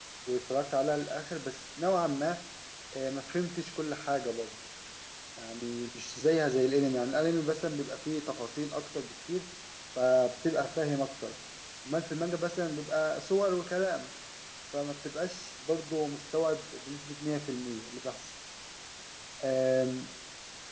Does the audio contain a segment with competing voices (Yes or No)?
No